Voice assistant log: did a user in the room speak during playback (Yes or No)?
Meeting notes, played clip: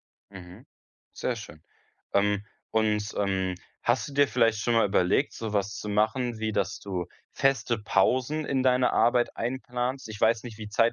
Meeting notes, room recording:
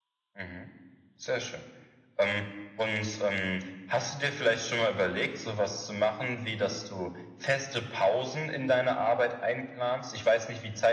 No